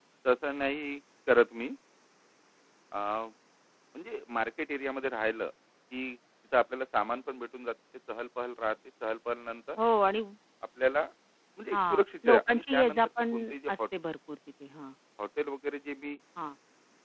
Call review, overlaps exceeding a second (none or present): present